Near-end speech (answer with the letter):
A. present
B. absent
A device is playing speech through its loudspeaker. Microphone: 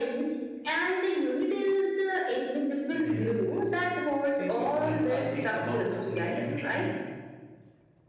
A